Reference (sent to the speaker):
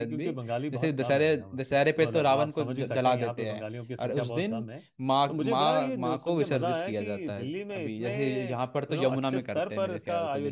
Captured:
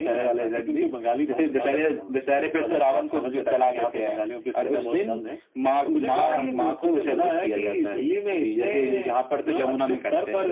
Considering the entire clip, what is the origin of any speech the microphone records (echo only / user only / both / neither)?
echo only